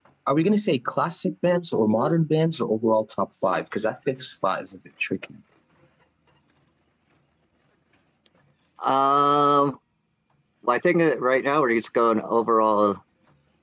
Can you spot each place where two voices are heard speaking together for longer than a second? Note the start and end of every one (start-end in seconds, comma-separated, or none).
none